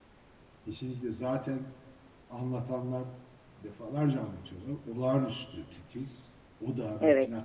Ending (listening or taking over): listening